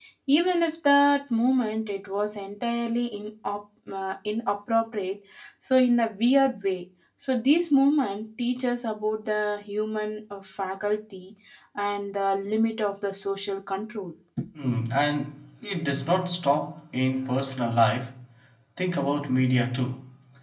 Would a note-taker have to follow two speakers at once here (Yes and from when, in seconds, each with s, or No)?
No